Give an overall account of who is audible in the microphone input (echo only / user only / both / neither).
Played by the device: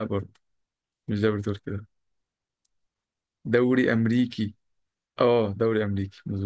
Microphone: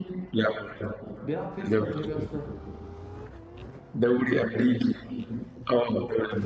both